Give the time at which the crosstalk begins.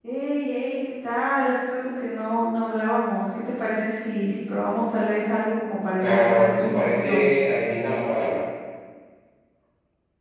6.0 s

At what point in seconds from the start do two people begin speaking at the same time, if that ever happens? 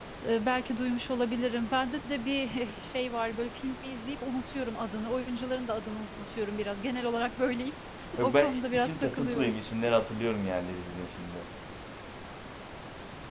8.2 s

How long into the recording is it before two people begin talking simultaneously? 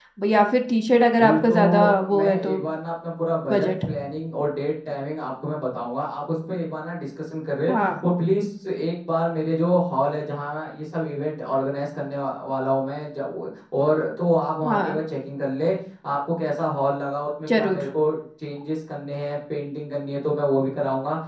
1.2 s

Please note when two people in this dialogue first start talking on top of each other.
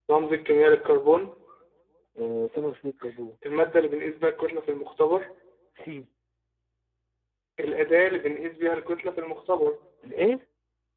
none

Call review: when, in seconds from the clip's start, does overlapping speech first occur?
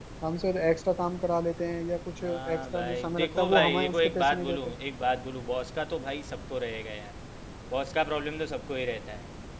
2.2 s

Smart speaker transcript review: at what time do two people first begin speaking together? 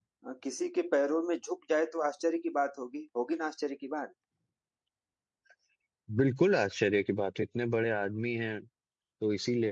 none

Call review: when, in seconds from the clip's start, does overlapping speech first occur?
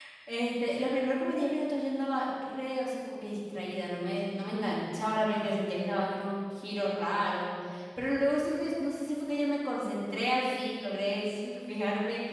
none

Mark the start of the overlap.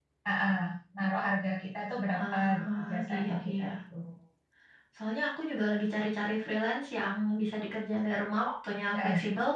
2.1 s

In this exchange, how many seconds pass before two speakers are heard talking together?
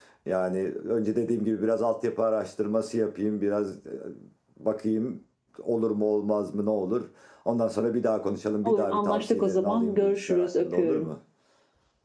8.7 s

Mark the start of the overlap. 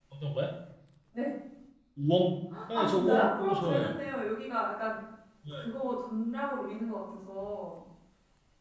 2.7 s

